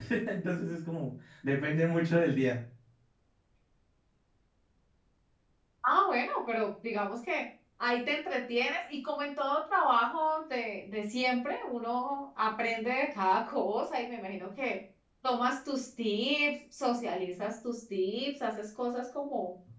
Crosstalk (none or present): none